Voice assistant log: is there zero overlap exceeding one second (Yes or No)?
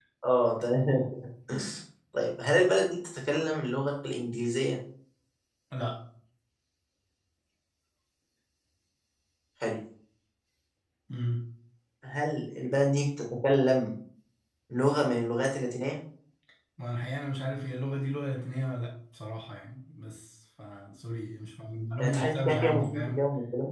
No